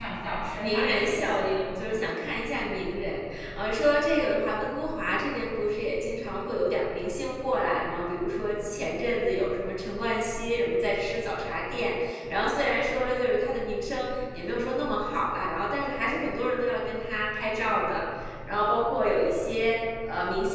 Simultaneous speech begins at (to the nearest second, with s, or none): 1 s